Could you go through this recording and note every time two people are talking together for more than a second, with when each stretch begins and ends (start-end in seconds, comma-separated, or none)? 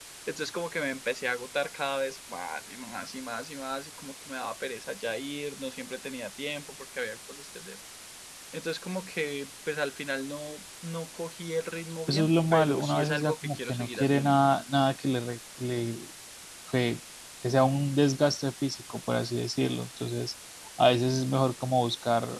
12.1-14.4